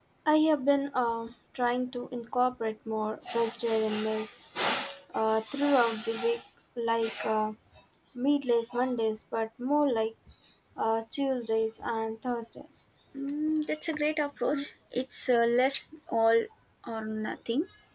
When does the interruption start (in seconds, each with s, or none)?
none